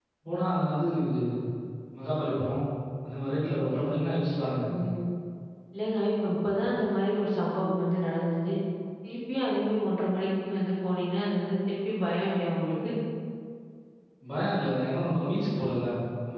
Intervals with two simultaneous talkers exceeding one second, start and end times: none

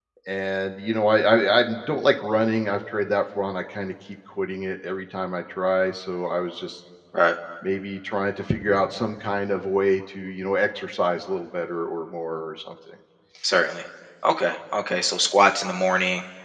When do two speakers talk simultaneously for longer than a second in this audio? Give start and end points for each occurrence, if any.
none

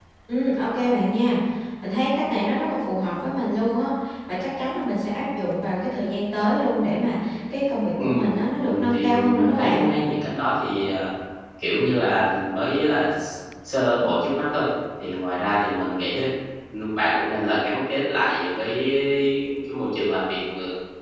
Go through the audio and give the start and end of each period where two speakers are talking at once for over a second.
8.6-9.8

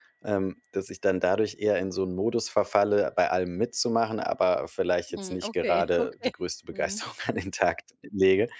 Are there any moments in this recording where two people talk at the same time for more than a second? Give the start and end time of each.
5.1-6.3

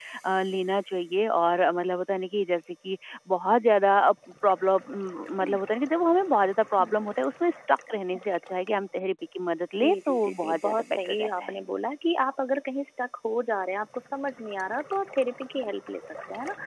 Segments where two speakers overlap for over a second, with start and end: 9.8-11.6

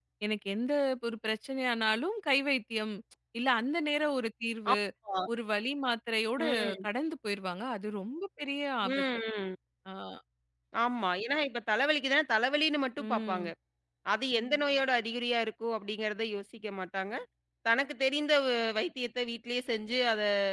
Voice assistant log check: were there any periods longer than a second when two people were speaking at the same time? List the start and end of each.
none

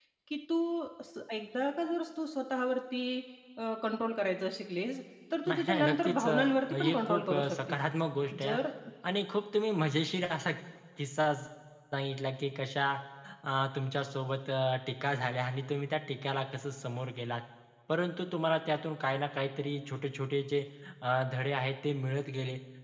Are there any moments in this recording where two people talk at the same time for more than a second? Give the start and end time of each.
5.5-7.8

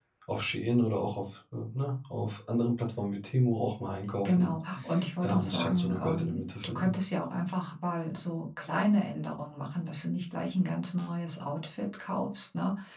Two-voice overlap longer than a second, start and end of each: 5.2-7.0

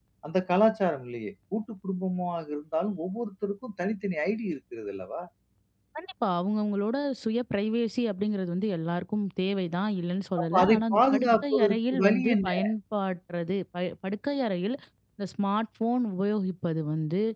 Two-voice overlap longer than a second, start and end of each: 10.4-12.5

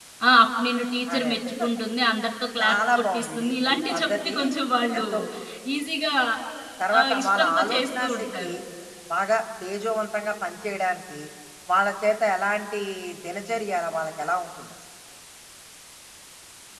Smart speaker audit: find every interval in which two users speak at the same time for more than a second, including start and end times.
2.6-4.3, 7.0-8.5

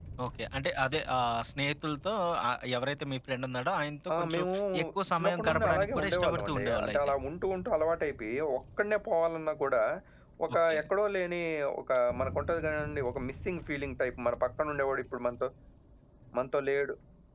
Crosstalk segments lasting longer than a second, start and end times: 5.2-7.1

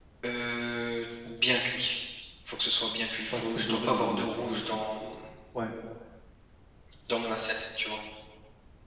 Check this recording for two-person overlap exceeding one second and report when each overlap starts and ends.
3.3-4.8

